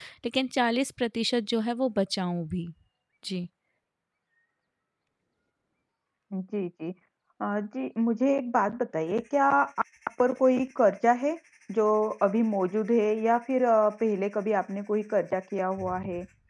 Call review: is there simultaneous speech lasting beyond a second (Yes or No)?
No